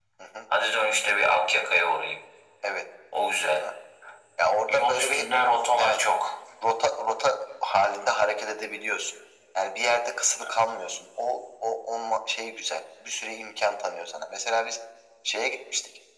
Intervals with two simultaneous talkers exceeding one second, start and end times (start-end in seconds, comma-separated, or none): none